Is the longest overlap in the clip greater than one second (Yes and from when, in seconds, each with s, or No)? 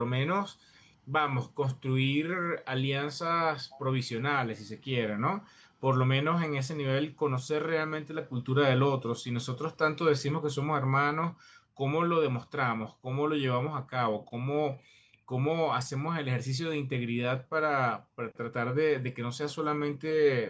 No